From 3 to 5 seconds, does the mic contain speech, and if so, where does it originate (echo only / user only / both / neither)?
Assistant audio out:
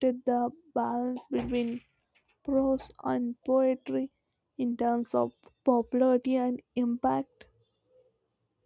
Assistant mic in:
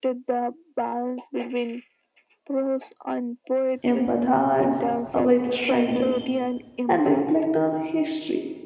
both